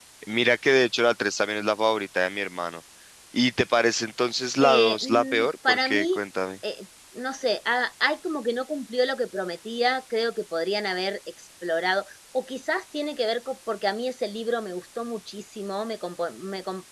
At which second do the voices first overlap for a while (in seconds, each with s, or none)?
4.6 s